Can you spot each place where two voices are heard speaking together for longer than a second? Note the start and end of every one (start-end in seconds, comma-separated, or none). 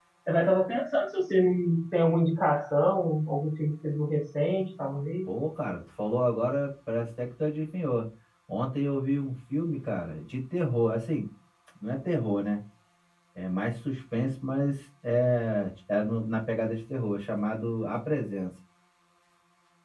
none